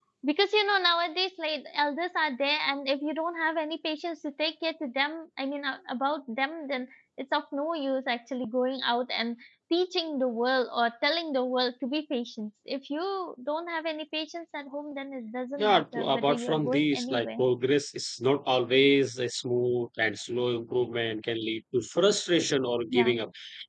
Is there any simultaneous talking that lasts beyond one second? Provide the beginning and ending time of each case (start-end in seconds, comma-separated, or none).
15.6-17.3